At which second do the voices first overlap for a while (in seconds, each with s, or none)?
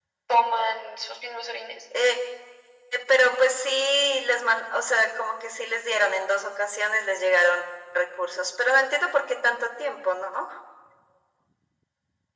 none